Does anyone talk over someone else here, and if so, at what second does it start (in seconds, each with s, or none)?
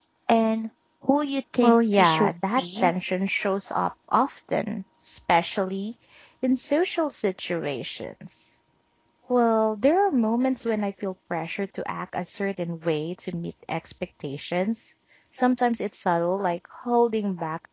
1.6 s